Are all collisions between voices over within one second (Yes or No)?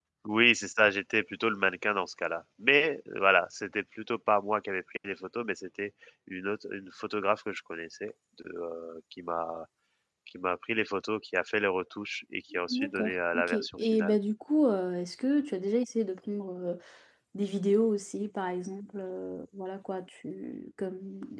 No